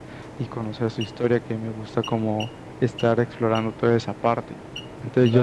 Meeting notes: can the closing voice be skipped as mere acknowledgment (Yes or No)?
No